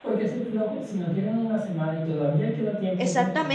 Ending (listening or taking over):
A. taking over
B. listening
A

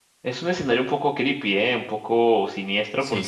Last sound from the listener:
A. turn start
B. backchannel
B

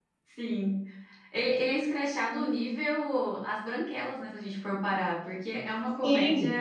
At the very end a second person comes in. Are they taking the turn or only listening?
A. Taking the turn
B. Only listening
A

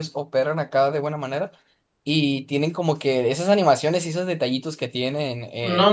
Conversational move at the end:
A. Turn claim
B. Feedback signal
A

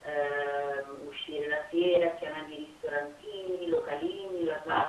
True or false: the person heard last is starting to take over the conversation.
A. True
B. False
A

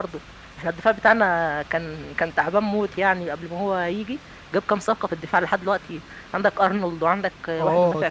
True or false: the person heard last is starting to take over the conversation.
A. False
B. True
B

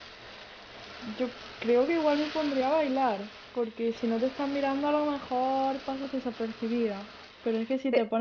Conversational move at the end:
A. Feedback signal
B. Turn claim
A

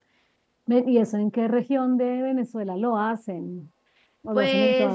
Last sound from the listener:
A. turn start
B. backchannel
A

